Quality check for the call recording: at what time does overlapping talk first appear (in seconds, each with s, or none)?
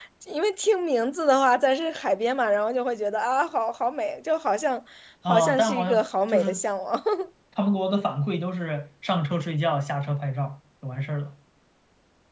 5.3 s